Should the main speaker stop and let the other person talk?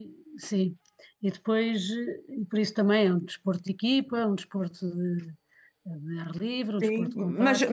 Yes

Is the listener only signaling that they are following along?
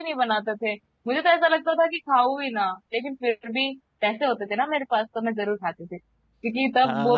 No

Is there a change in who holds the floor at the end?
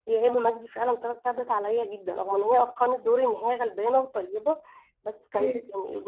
No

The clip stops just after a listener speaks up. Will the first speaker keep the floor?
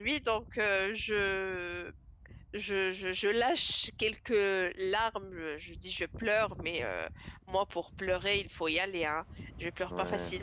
Yes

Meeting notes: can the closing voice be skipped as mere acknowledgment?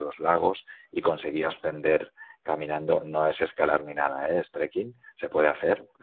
Yes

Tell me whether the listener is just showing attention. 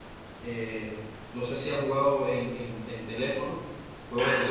No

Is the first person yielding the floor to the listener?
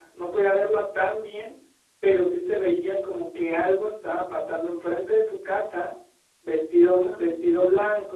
No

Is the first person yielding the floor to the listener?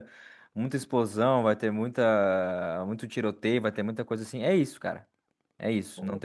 No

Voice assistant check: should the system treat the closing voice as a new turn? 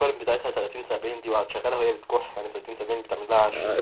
Yes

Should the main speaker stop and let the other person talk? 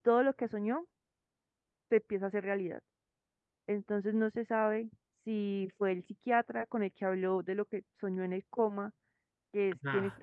Yes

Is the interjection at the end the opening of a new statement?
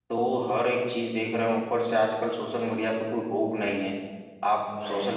No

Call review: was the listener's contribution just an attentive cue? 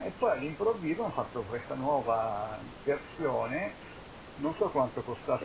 Yes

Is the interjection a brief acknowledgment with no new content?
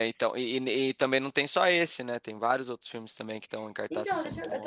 No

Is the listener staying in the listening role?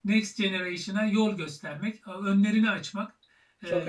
Yes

